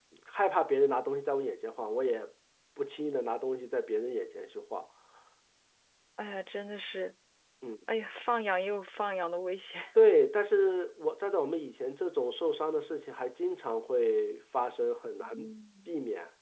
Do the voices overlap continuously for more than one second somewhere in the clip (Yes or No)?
No